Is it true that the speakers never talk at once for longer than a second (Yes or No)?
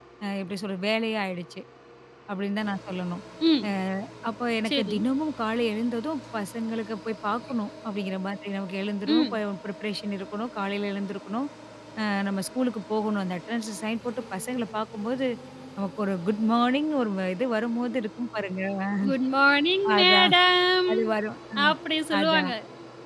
Yes